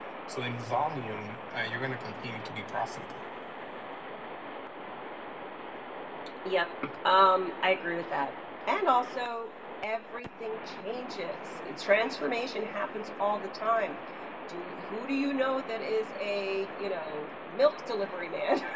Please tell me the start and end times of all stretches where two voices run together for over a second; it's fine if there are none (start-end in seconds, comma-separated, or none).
none